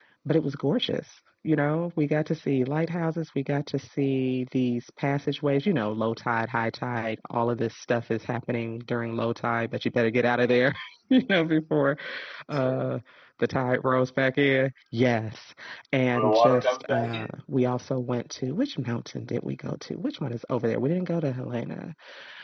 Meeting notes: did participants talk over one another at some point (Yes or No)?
Yes